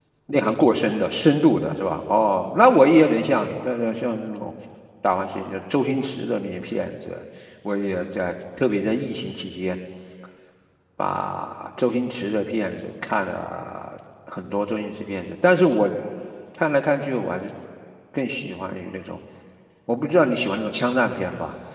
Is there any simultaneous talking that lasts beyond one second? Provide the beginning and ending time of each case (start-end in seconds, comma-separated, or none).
none